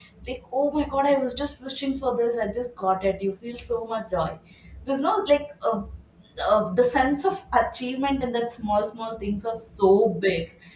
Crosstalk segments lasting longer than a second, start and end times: none

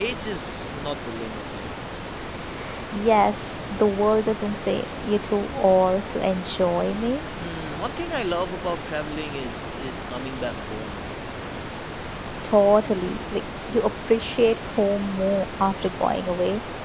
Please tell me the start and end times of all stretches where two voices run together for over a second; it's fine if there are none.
none

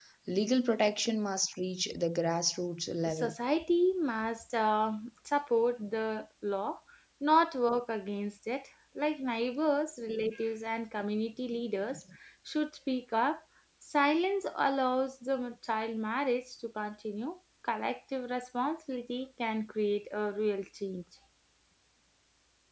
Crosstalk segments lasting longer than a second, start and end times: none

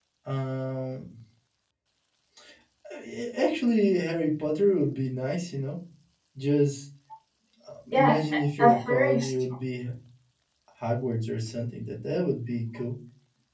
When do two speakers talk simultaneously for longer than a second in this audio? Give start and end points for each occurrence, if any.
7.9-9.3

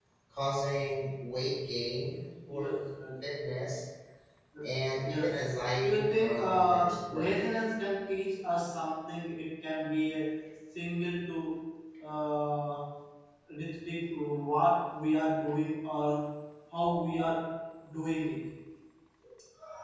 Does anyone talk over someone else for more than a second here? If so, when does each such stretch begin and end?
5.8-7.5

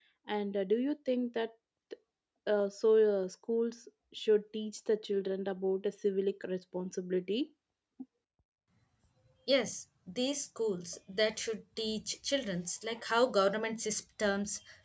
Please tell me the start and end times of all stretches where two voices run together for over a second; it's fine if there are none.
none

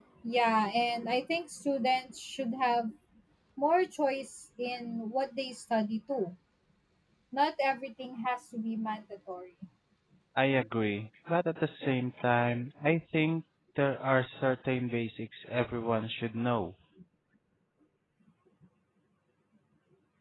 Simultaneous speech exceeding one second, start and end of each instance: none

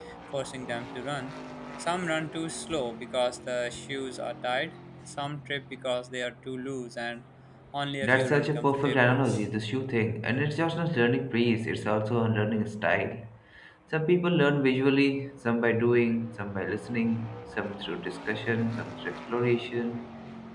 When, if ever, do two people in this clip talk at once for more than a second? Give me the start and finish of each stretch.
8.0-9.2

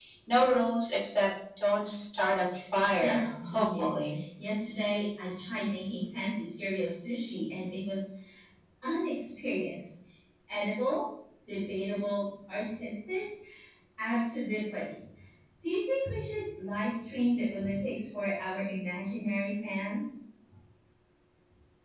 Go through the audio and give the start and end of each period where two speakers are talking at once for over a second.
3.0-4.2

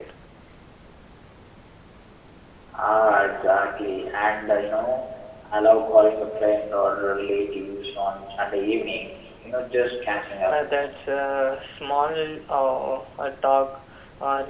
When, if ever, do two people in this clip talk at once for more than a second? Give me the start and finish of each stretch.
none

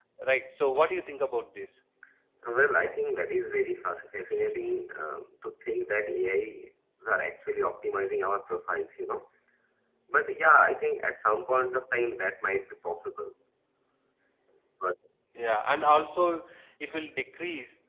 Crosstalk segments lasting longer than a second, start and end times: none

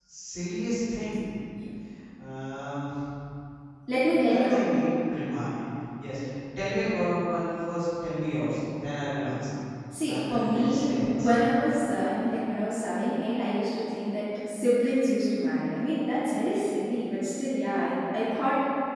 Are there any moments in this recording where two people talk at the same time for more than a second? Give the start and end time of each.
10.1-11.3

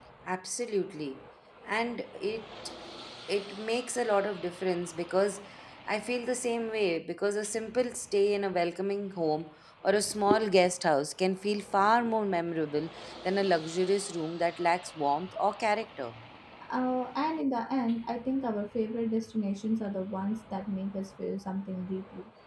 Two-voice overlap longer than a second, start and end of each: none

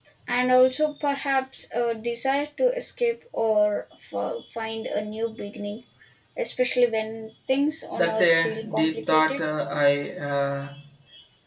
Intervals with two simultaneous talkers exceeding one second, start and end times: 8.0-9.4

